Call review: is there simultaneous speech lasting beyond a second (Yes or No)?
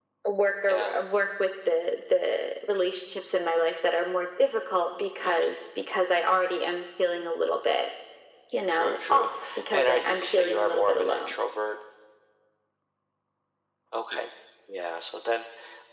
Yes